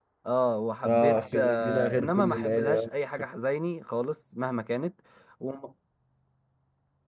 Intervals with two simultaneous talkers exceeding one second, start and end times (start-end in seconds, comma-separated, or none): 0.8-2.9